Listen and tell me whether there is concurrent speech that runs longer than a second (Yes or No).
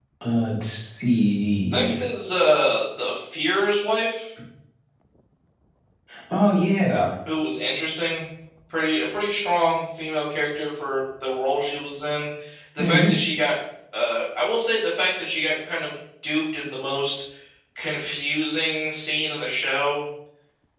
No